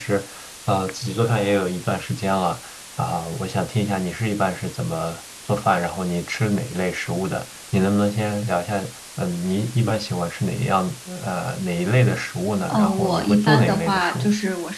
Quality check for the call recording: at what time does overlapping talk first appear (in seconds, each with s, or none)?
12.7 s